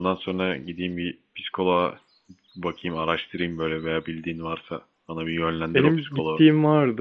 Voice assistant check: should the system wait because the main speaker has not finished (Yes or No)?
No